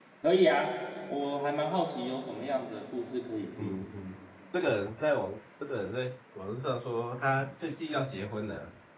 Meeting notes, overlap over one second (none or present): none